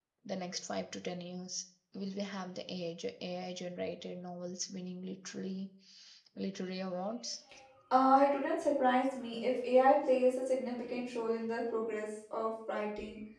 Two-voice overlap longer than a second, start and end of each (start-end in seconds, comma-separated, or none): none